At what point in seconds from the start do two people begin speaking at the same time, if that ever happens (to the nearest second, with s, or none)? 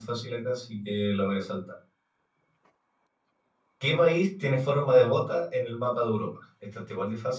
none